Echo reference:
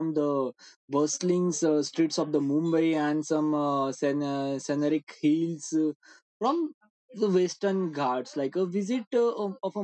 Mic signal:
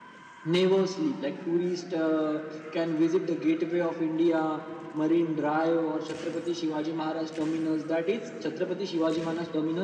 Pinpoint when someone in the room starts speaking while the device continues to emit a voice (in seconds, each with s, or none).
0.4 s